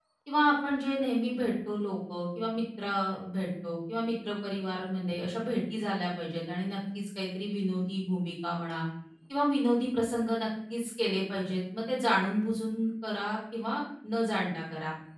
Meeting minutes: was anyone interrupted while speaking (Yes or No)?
No